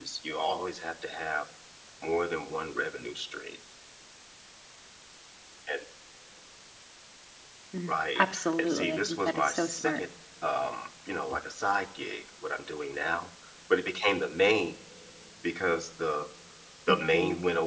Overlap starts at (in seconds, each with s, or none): 7.9 s